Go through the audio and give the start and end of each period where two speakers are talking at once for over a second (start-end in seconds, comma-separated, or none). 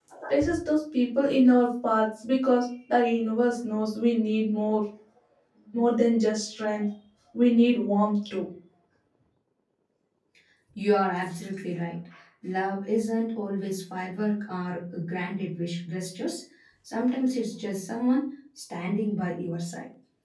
none